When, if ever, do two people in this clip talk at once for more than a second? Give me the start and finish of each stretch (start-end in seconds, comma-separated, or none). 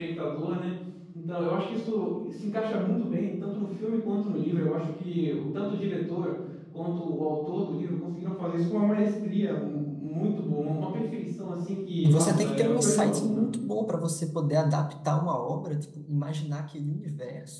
12.0-13.4